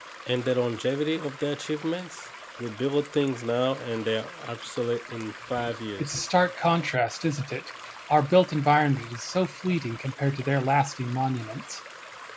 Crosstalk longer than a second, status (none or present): none